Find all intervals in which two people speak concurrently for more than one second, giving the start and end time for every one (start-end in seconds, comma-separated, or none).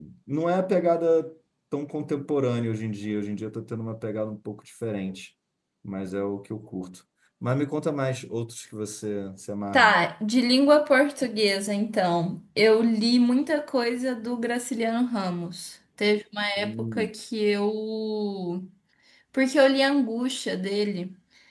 none